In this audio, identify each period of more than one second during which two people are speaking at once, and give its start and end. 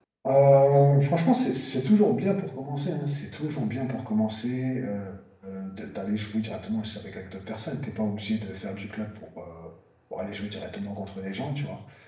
none

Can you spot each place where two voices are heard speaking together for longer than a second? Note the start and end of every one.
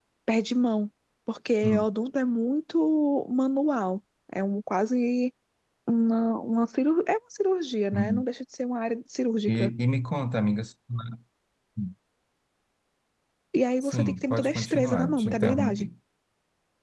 13.8-15.9

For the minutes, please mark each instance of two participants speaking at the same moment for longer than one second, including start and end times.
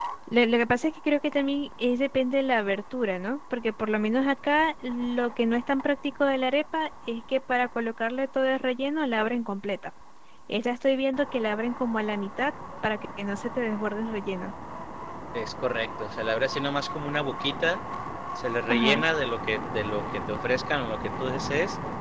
none

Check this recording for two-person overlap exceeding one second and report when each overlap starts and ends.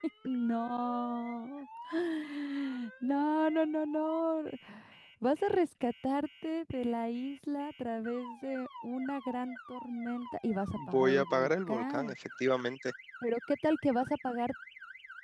10.8-12.2

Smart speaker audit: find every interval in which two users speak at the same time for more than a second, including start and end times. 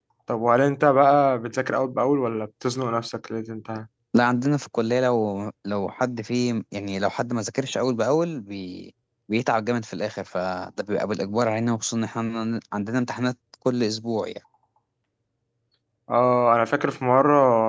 none

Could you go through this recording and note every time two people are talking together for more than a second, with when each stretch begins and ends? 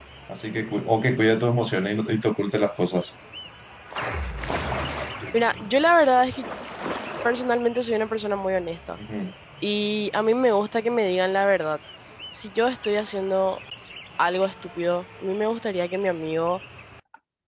none

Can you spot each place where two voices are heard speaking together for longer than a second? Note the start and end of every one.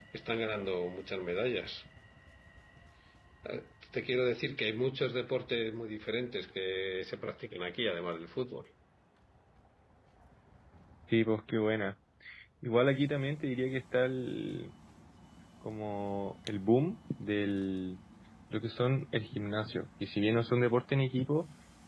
none

